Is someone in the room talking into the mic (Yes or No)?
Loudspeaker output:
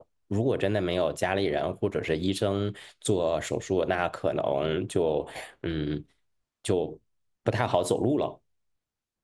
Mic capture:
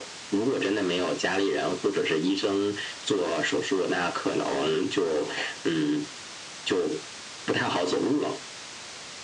No